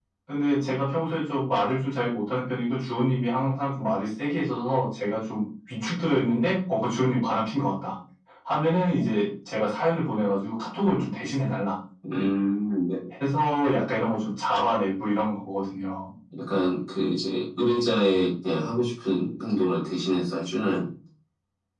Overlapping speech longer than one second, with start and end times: none

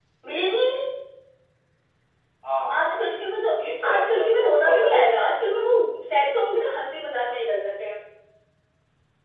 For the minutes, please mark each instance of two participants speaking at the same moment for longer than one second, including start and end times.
3.9-5.2

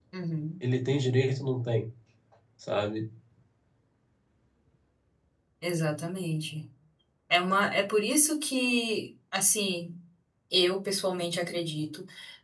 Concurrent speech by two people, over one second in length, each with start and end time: none

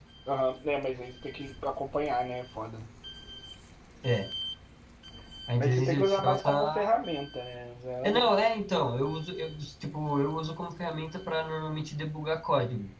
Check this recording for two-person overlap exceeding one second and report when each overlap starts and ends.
5.6-6.9

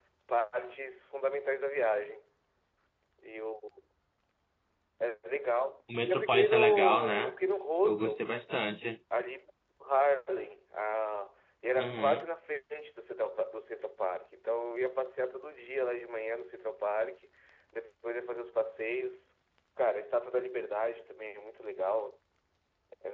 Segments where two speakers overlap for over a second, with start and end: 6.1-7.3

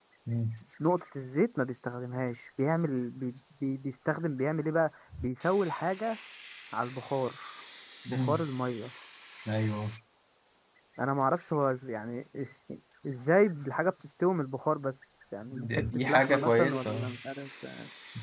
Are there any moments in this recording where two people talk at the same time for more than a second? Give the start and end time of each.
15.5-17.1

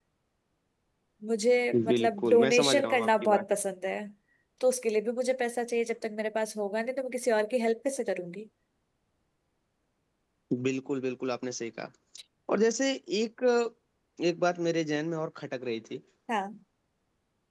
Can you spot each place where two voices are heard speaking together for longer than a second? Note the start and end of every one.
1.9-3.4

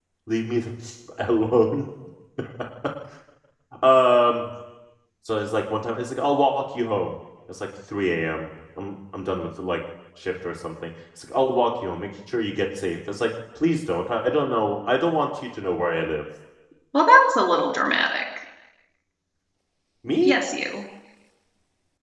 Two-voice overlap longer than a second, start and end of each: none

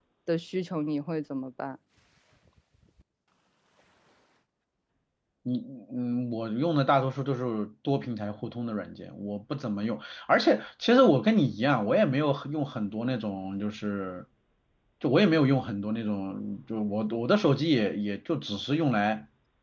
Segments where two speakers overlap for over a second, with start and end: none

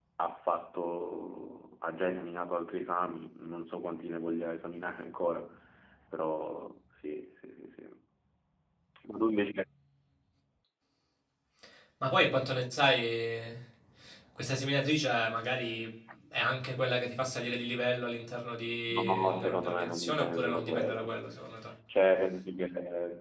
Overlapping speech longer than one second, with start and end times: 18.9-21.2

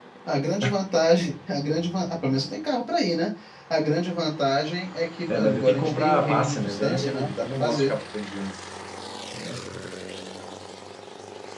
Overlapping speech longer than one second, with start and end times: 5.3-7.9

